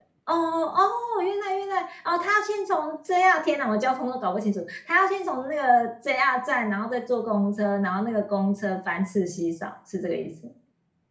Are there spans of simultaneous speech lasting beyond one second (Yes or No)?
No